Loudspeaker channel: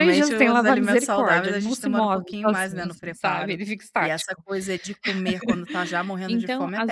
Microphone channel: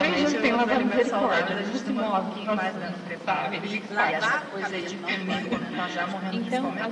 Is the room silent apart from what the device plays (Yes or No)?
No